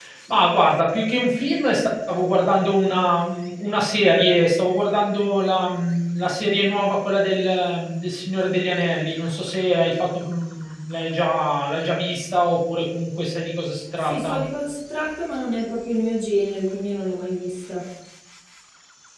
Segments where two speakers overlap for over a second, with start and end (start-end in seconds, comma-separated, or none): none